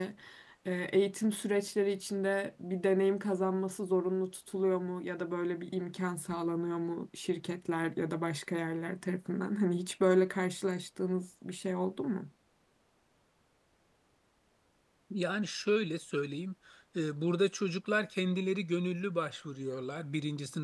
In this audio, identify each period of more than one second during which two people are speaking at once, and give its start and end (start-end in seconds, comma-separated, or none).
none